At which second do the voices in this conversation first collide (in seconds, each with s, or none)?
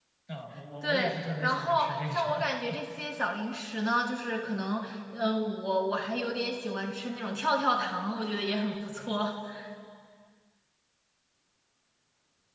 0.8 s